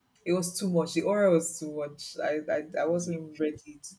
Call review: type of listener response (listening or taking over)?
listening